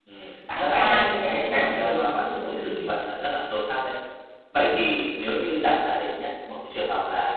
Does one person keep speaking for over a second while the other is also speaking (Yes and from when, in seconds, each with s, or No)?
Yes, from 0.6 s